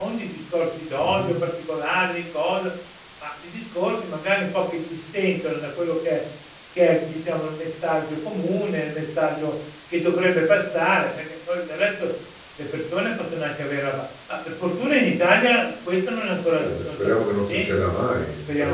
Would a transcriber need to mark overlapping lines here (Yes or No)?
Yes